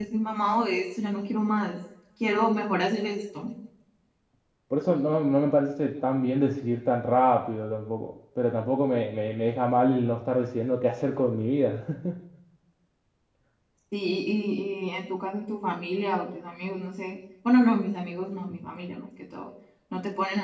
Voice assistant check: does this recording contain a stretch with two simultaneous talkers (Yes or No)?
No